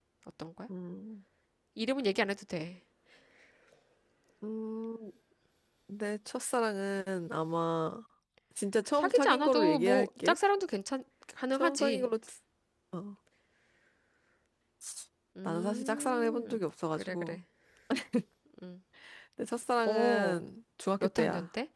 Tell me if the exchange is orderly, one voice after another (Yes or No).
No